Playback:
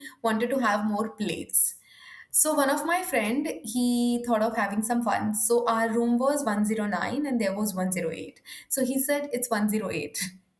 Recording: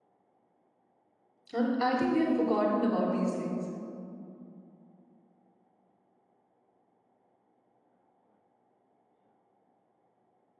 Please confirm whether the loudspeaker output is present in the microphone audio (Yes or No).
No